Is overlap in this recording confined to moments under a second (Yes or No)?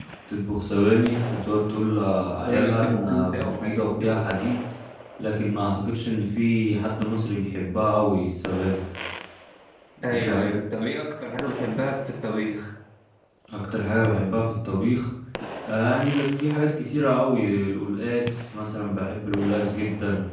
No